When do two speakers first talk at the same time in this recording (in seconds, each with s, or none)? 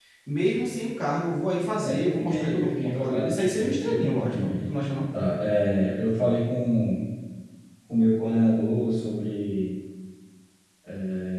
1.8 s